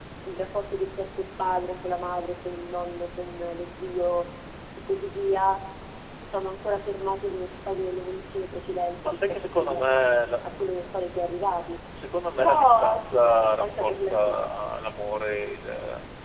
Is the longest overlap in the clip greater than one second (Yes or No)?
Yes